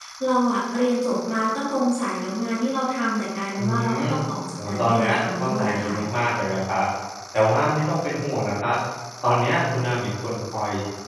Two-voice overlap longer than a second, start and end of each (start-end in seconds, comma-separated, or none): 4.6-6.0